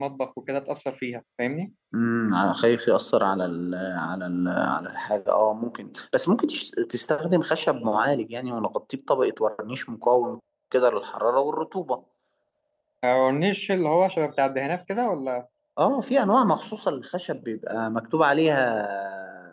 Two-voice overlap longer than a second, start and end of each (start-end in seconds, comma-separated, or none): none